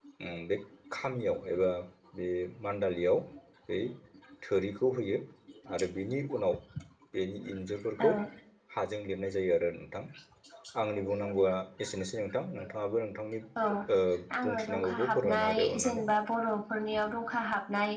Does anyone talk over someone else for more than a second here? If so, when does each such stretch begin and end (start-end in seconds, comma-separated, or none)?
14.5-16.1